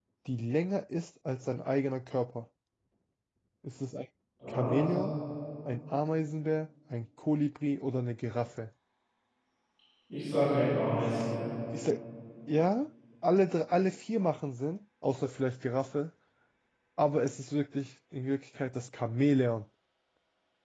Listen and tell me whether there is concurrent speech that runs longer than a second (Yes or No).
No